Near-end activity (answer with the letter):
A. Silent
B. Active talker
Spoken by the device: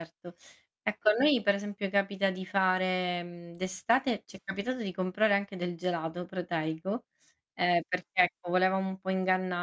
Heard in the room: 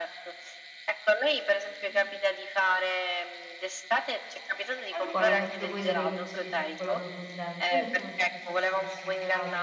B